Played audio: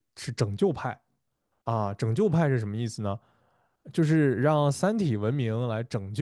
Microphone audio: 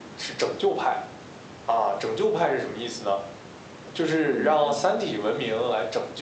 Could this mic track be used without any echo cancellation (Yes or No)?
No